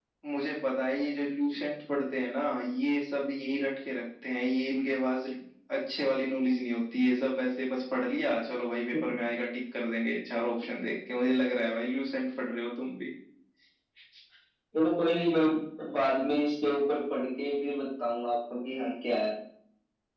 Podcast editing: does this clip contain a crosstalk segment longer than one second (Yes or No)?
No